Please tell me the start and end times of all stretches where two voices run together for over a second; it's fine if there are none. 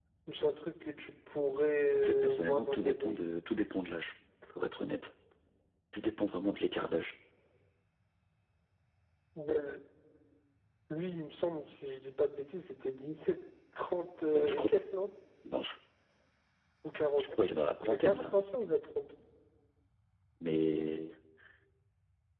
2.0-3.2

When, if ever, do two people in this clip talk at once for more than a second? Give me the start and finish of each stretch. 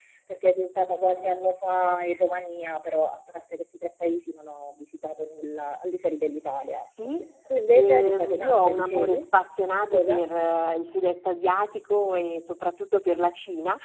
7.7-9.3

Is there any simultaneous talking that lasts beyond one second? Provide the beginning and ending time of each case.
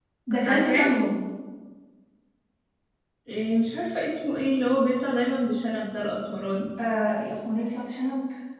none

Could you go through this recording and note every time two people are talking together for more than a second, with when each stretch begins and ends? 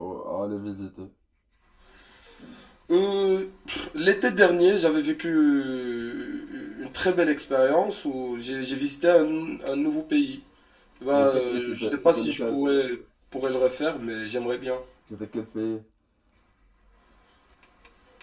11.1-12.6

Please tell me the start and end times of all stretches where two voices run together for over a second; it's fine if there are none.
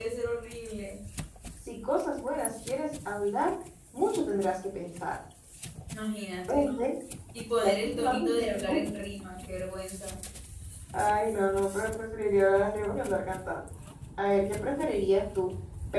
7.6-8.8

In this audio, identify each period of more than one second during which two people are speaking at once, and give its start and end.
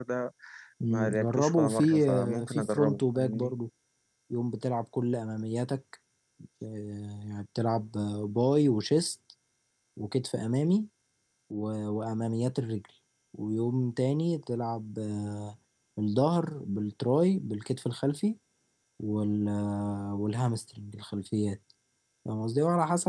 0.9-3.5

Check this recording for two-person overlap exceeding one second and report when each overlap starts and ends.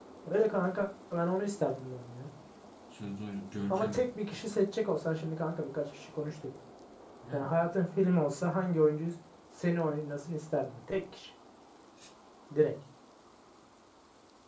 none

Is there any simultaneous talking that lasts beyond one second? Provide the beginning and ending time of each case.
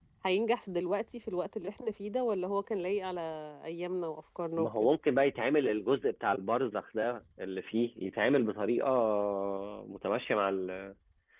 none

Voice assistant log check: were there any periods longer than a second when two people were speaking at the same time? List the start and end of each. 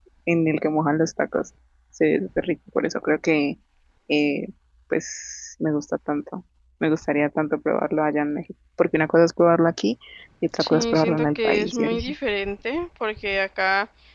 10.6-12.1

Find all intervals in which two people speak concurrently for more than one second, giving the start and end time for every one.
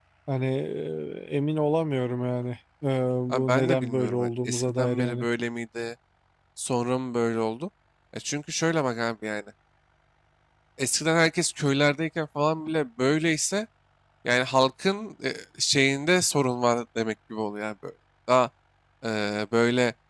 3.3-5.2

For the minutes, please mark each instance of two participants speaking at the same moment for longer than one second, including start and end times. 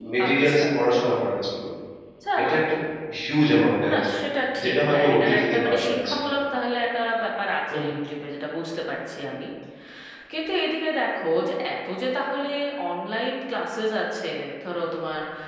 4.6-6.3

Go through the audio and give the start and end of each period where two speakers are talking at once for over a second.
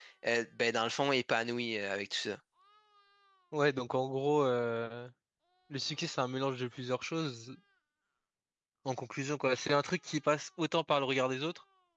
none

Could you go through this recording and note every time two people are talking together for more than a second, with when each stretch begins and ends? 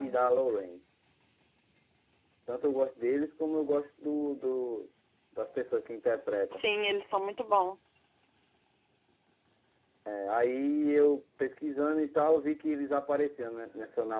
none

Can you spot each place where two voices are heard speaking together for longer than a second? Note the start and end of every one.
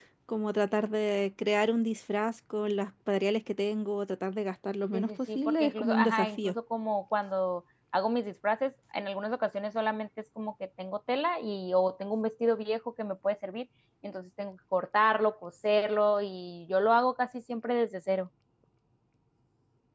4.9-6.5

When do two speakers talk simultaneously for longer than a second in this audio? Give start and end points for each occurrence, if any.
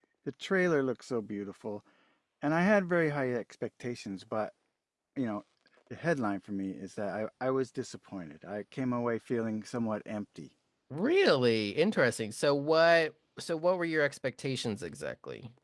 none

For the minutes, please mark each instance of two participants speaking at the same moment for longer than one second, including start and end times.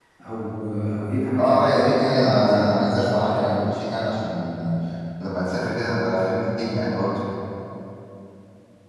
1.4-3.5

